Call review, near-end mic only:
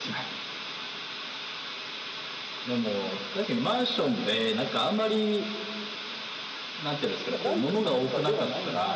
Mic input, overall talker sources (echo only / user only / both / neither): both